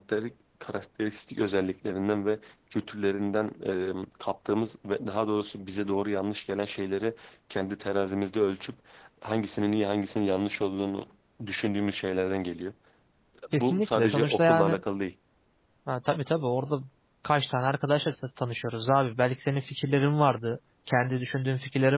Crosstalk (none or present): present